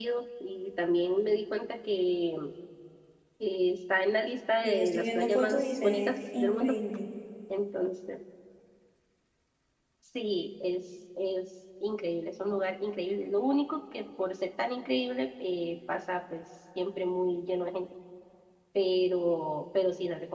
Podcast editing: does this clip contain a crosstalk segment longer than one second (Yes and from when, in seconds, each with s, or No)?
Yes, from 4.6 s